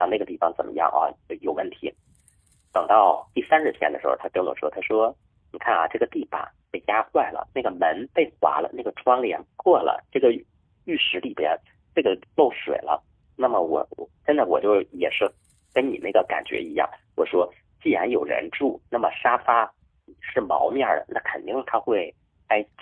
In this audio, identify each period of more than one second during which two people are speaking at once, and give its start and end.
none

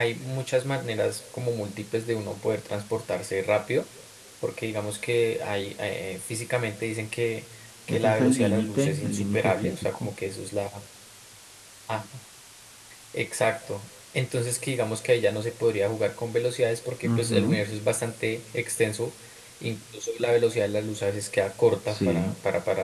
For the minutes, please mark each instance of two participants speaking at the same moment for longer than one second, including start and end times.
7.9-10.1

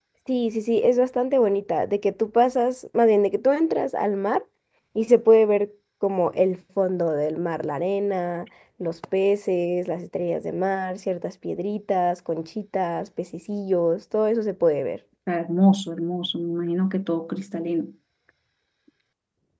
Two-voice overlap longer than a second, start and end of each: none

